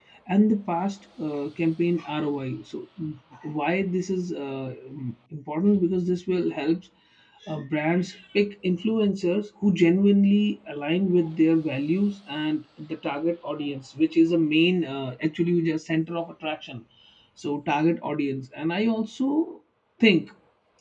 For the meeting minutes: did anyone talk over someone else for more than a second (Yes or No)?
No